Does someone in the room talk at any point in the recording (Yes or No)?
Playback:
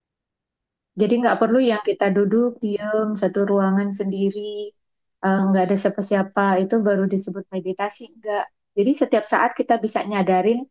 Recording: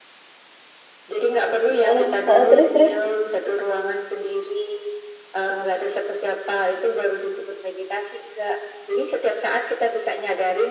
Yes